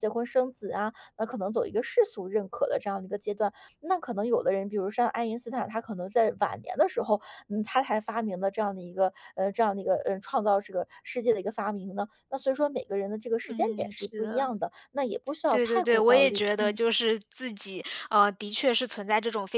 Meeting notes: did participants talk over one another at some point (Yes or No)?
Yes